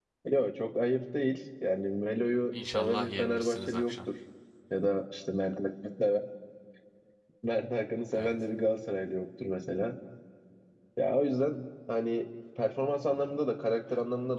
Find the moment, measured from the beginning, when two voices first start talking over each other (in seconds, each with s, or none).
2.5 s